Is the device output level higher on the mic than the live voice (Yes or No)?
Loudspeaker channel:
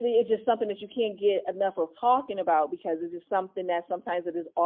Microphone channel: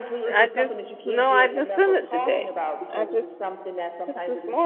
No